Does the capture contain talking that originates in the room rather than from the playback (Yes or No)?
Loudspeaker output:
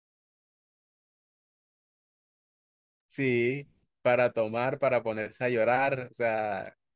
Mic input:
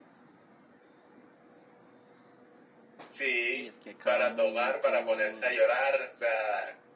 Yes